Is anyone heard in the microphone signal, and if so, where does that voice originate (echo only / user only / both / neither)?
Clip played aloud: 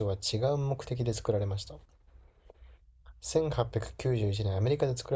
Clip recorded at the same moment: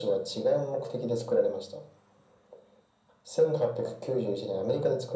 echo only